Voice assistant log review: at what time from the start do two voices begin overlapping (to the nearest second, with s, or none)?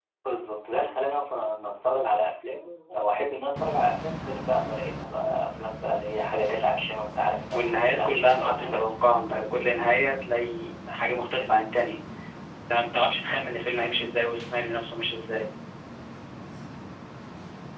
8 s